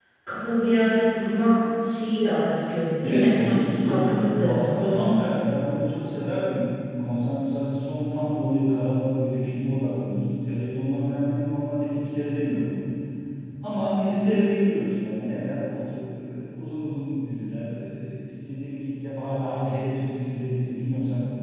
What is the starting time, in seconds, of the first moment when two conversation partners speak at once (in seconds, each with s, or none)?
3.0 s